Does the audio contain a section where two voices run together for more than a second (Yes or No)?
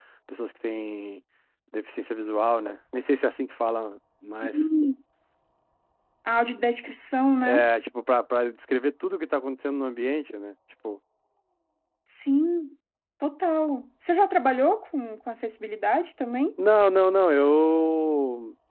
No